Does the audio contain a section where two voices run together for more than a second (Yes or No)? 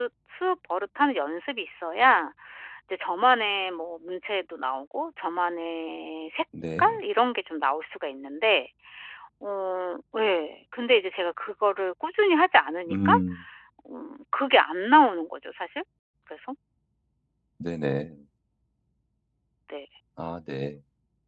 No